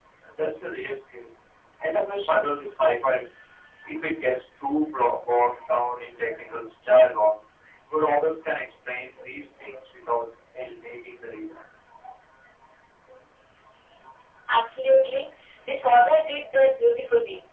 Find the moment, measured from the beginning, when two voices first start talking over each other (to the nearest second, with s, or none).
none